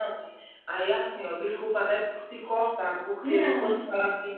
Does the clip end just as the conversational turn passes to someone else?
No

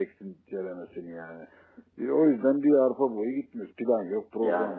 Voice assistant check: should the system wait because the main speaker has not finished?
Yes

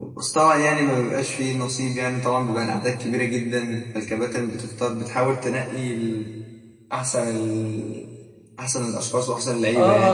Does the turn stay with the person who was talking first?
No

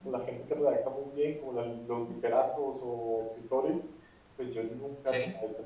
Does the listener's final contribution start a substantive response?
No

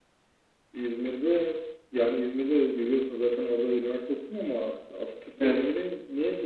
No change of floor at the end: Yes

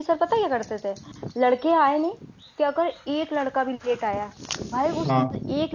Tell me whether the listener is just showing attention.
Yes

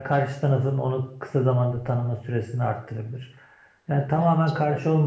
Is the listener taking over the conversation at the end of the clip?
No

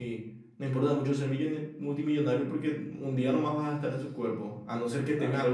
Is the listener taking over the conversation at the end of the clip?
No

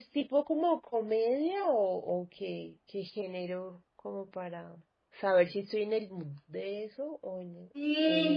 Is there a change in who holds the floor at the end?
Yes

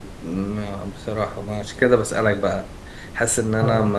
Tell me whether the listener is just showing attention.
Yes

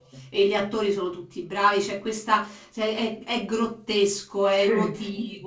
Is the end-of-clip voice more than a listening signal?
No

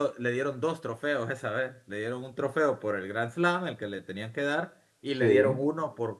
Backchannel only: Yes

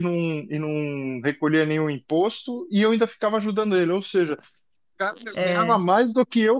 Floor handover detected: No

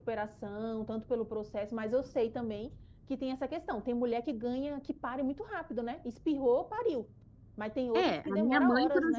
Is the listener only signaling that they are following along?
No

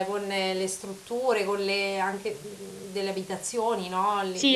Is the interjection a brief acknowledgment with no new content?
No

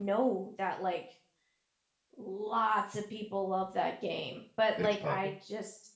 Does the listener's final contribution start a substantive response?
No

